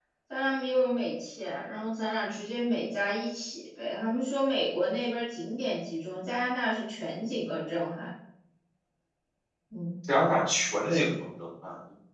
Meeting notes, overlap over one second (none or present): none